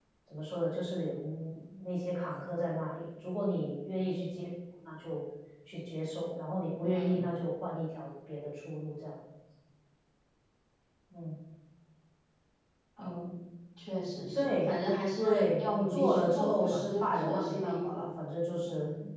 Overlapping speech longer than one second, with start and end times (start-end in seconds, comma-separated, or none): 15.2-18.0